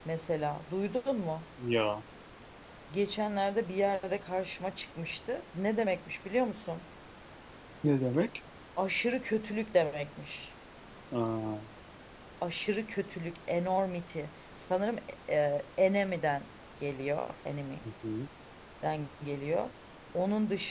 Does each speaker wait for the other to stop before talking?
Yes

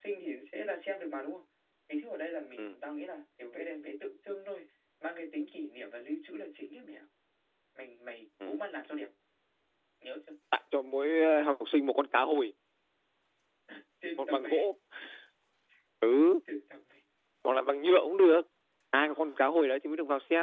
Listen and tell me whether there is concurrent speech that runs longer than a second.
No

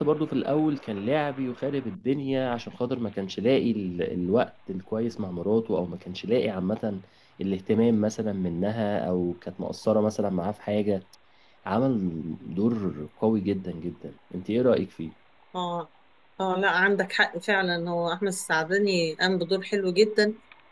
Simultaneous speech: No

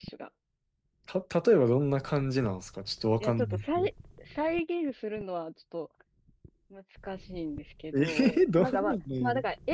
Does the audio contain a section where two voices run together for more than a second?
Yes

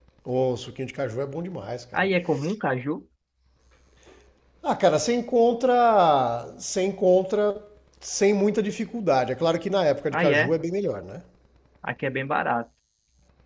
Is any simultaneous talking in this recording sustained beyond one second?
No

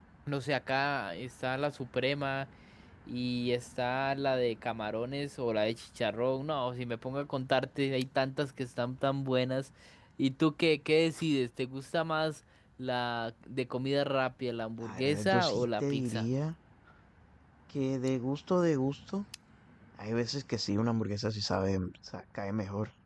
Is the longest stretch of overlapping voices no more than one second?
No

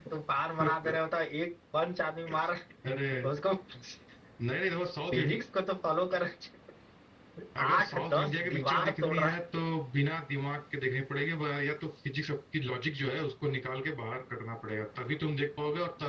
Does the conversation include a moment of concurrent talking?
Yes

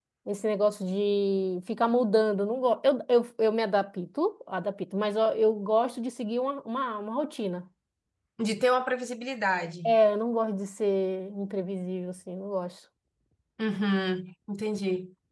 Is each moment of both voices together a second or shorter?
Yes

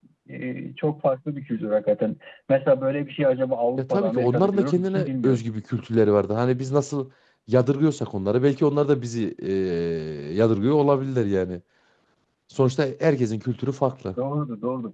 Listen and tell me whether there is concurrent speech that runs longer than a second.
Yes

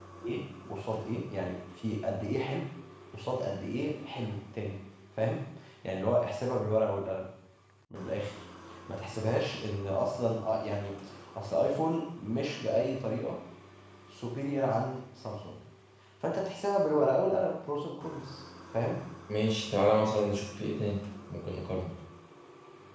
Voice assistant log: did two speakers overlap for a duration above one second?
No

